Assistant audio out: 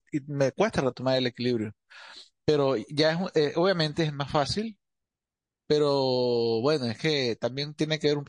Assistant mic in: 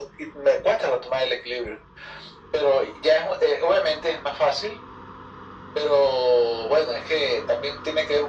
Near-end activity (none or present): none